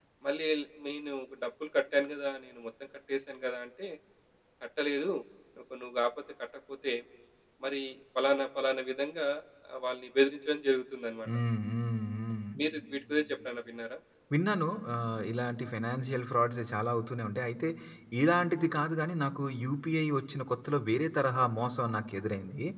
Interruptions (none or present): none